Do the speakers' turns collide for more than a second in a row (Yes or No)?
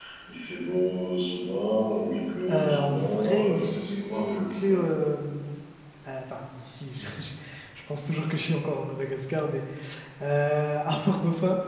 Yes